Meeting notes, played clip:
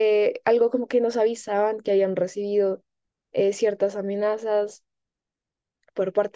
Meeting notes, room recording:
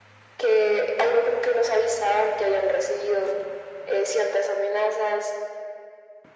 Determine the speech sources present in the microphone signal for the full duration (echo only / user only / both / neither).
echo only